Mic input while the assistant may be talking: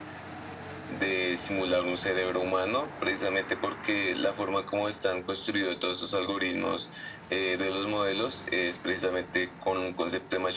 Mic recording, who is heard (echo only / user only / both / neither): echo only